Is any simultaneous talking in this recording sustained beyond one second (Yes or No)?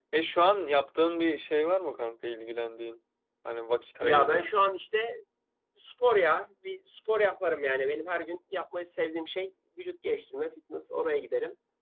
No